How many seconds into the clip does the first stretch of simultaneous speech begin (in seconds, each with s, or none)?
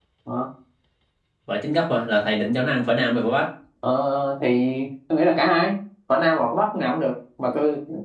none